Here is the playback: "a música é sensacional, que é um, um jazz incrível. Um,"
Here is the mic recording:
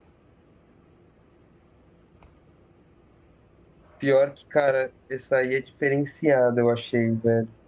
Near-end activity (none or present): present